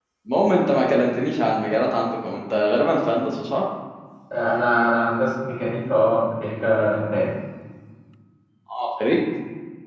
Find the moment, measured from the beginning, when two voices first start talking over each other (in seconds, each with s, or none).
none